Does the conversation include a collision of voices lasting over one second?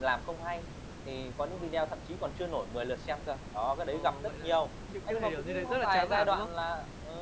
Yes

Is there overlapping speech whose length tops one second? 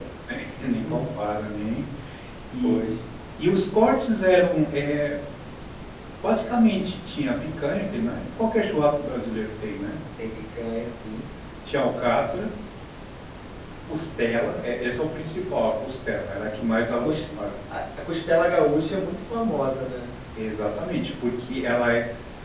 No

